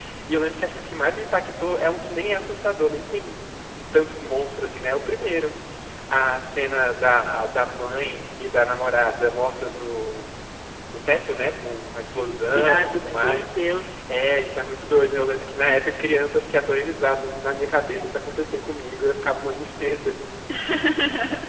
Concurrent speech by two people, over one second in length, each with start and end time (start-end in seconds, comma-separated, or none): 12.2-13.4